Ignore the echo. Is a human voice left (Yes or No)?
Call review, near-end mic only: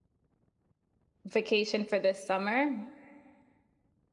Yes